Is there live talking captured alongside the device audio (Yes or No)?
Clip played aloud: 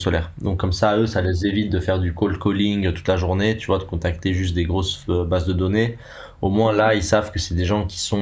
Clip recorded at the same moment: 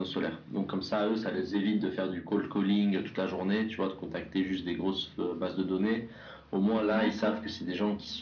Yes